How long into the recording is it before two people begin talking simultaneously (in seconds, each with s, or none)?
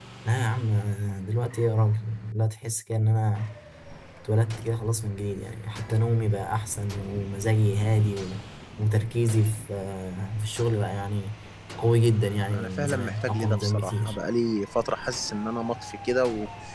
12.1 s